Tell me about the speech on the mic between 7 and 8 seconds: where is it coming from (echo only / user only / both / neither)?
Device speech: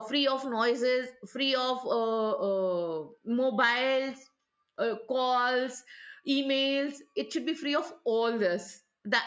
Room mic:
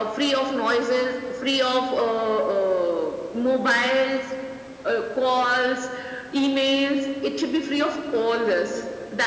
echo only